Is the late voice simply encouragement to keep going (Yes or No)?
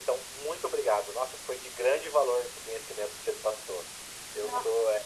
Yes